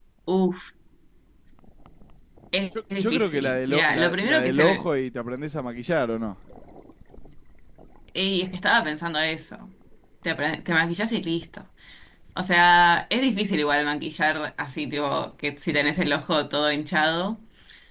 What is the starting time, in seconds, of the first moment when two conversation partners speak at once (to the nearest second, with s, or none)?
3 s